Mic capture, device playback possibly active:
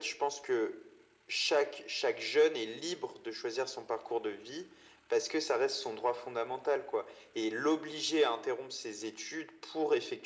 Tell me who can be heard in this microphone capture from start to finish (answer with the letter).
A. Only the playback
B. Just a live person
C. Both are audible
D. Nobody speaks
A